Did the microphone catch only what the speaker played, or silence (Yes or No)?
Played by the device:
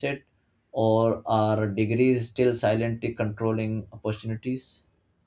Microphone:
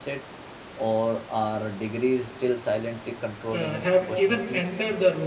No